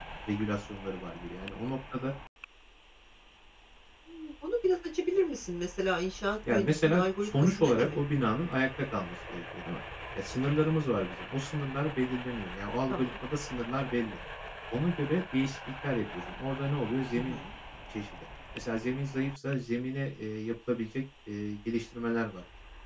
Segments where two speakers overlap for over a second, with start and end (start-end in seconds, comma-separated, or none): 6.5-8.0